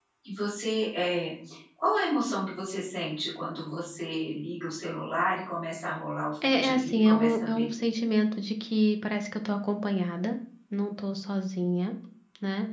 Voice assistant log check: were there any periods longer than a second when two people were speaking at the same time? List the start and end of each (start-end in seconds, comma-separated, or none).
6.4-7.7